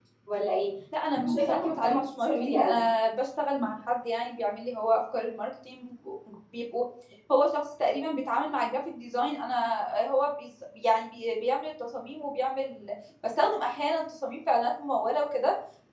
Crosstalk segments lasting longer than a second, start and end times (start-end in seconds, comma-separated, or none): 1.2-2.8